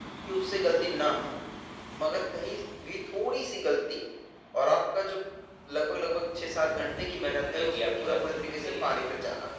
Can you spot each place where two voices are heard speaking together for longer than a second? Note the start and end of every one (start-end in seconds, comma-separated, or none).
7.2-8.9